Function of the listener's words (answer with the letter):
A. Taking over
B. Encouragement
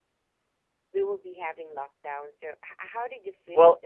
A